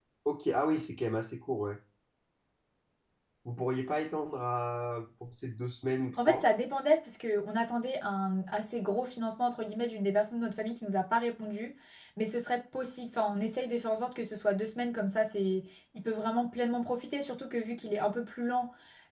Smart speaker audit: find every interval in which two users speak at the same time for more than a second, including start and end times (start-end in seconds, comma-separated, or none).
none